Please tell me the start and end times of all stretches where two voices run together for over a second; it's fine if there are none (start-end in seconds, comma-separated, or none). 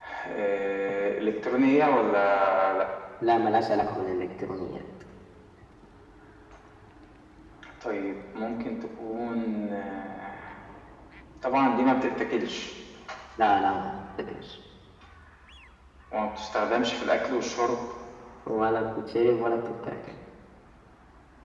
none